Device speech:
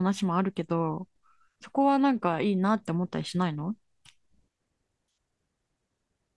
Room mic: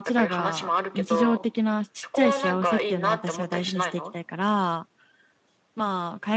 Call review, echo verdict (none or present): present